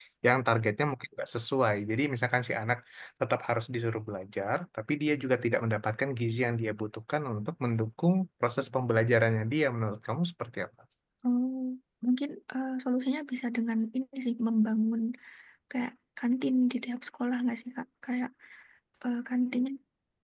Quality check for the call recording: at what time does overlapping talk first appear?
none

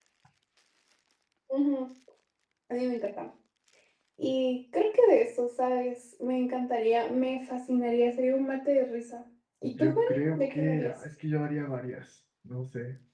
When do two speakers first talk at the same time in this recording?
9.6 s

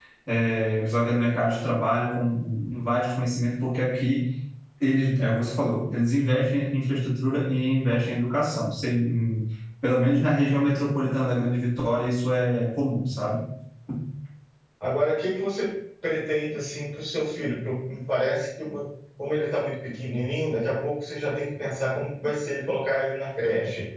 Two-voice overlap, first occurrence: none

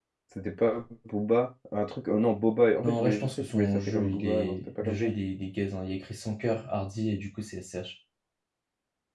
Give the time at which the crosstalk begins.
2.8 s

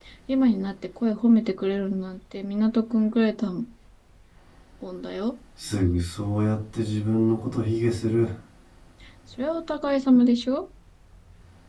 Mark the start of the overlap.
none

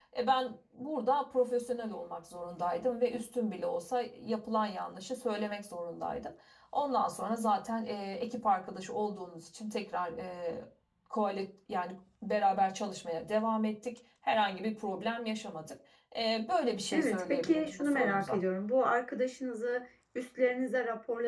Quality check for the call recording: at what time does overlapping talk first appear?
16.9 s

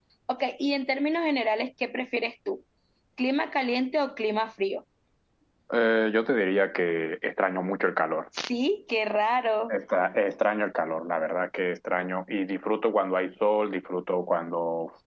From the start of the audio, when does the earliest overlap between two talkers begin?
none

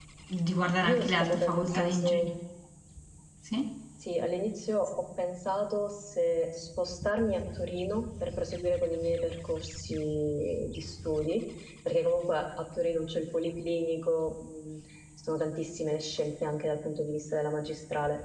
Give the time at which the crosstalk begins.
0.9 s

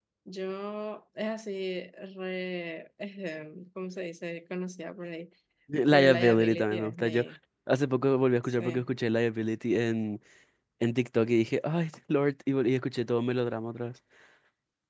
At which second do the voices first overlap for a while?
5.9 s

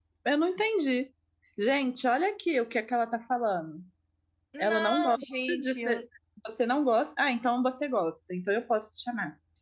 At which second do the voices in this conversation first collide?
4.6 s

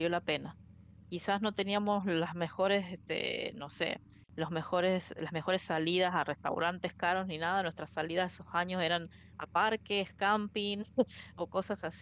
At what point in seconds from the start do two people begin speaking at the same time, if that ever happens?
none

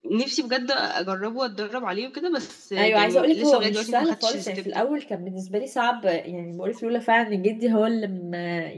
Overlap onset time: 2.8 s

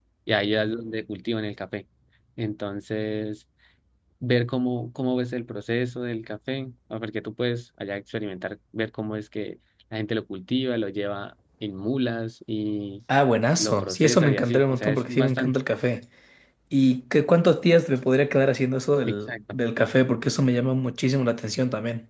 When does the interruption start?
13.6 s

